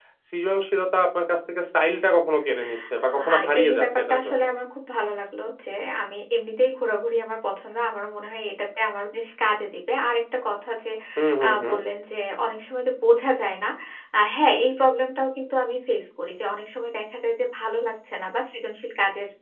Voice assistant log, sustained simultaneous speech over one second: present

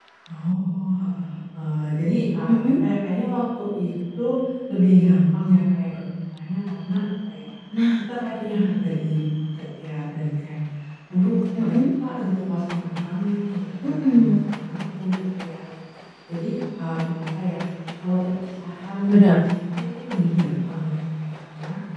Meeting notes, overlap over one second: none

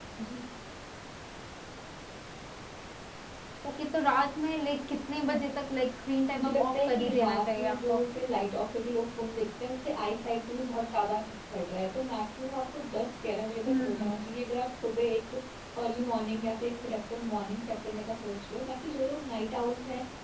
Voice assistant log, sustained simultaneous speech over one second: present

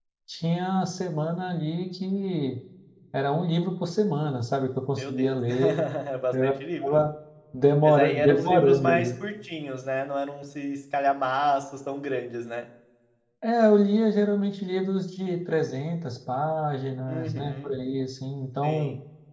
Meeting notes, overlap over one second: present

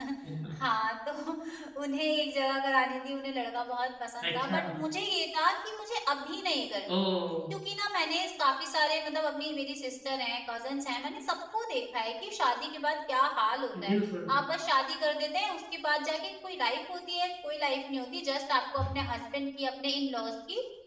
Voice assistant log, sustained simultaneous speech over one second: none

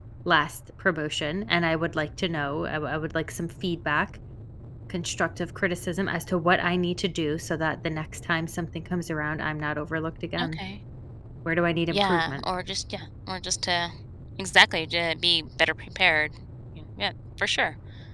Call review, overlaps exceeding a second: none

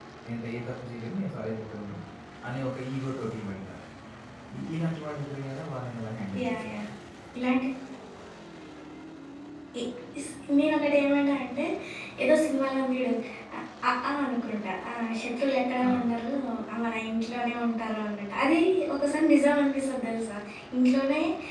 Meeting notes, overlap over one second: none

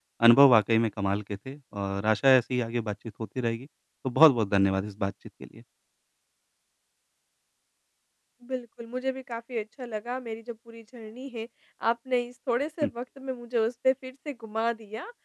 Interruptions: none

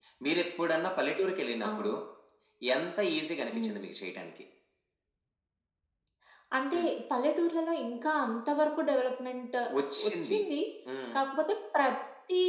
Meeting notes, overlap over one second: none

